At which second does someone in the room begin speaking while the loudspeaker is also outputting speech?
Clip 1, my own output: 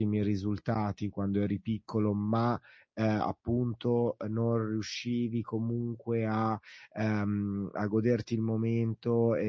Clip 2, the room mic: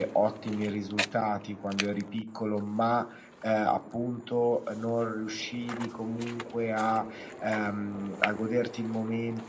none

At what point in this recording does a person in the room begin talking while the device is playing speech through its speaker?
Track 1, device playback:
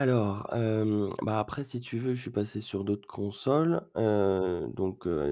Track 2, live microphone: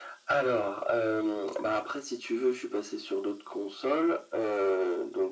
none

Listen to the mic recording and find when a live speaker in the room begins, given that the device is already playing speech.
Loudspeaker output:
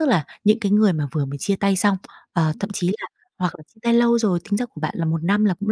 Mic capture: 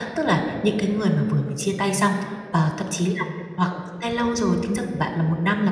none

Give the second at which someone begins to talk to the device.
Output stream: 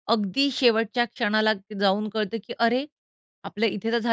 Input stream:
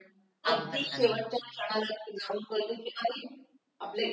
0.4 s

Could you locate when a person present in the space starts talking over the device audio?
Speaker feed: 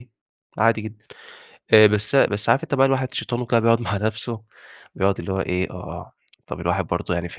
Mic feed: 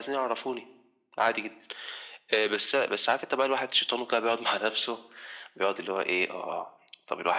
none

